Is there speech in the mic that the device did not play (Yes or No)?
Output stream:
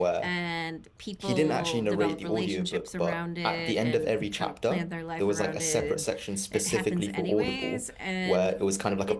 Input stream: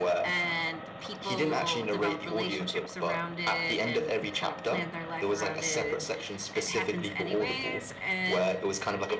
No